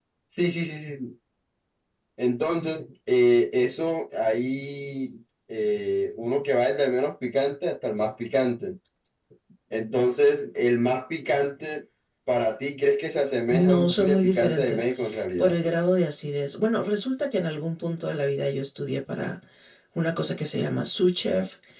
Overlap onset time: 14 s

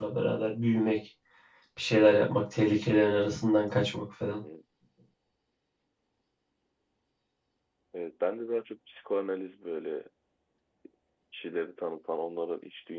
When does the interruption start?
none

